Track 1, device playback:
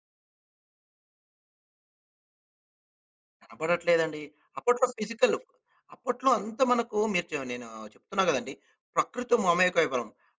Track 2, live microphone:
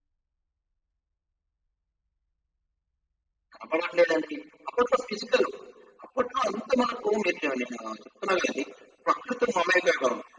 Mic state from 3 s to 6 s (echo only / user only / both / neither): echo only